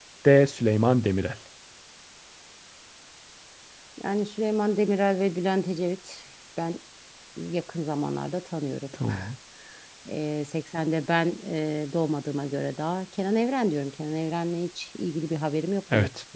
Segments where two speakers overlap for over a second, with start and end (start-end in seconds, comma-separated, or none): none